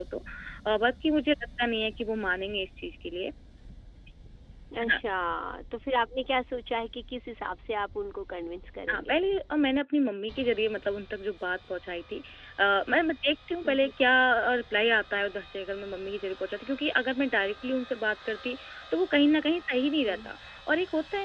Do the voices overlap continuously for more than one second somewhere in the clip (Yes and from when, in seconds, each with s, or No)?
No